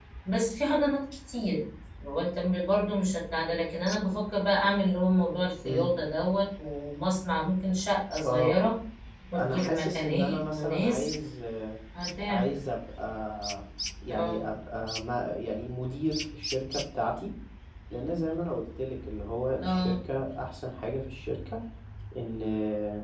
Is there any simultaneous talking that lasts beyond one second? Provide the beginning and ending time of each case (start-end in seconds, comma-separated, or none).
9.4-11.1